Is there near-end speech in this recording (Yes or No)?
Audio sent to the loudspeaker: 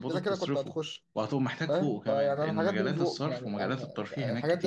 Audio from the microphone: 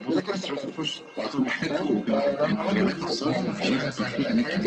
Yes